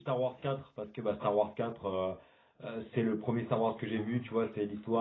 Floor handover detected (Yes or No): No